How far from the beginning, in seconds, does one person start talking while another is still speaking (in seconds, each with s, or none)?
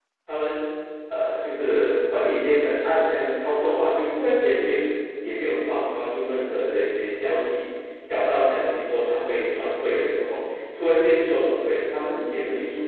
none